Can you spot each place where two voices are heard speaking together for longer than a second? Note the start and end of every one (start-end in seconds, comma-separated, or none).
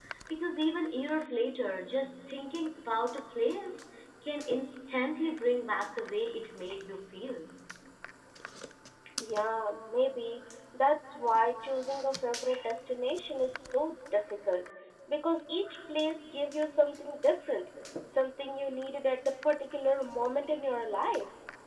none